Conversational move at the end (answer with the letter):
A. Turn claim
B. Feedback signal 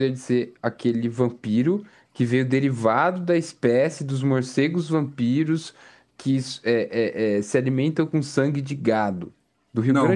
A